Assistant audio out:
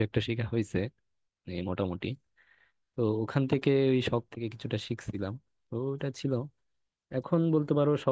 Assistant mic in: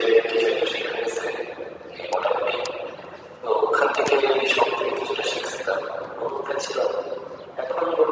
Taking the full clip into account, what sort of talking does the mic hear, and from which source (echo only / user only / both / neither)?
echo only